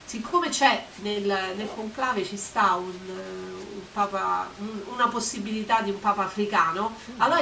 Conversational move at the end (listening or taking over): listening